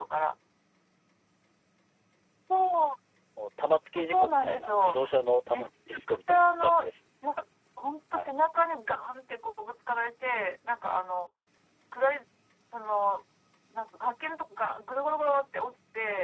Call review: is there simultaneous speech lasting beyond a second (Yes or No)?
Yes